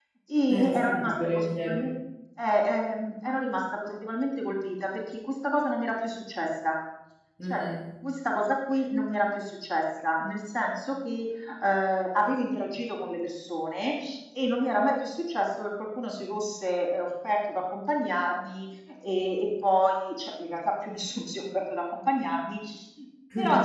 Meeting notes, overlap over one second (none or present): present